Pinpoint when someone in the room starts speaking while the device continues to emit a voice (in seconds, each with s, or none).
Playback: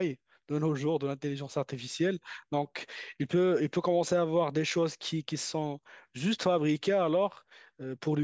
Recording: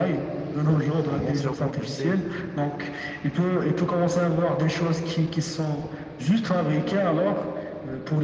0.7 s